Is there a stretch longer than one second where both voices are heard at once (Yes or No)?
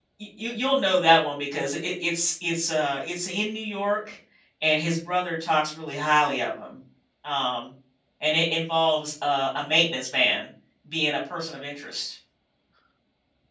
No